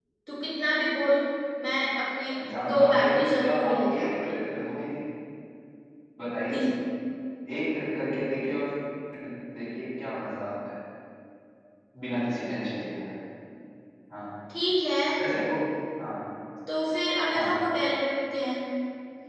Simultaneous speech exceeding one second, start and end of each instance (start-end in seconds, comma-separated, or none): 2.7-4.4